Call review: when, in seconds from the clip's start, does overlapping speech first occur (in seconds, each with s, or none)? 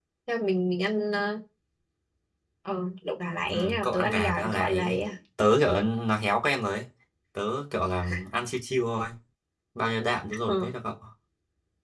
3.5 s